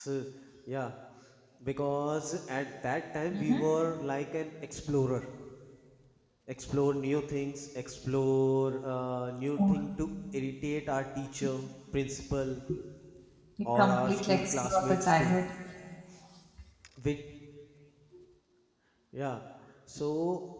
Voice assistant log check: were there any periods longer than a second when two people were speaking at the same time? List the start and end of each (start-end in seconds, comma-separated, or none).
13.7-15.4